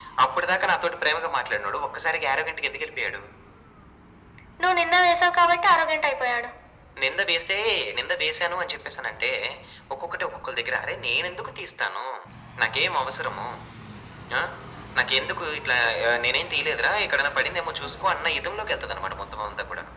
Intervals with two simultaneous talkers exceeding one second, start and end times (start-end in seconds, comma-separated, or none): none